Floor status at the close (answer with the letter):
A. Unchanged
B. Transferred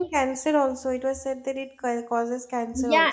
B